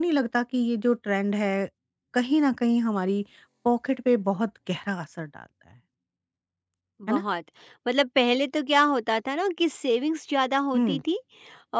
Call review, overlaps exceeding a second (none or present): none